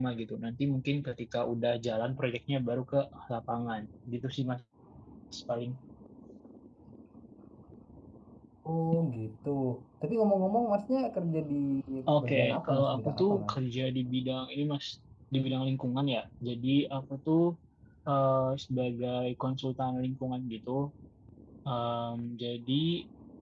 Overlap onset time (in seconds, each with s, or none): 12.2 s